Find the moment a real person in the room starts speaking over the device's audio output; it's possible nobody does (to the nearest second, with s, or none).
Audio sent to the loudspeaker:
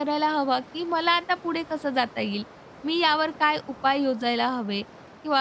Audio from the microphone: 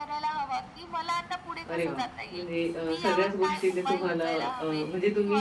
2 s